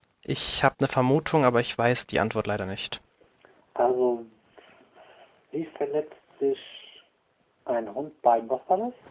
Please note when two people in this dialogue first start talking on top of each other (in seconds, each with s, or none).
none